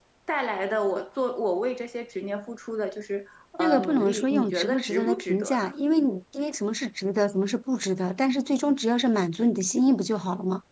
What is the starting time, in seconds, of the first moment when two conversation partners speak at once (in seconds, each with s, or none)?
3.6 s